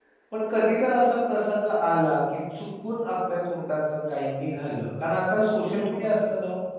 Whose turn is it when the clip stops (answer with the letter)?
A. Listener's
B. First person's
B